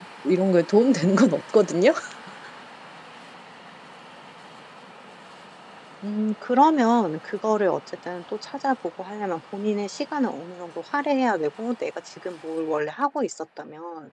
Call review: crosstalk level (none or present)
none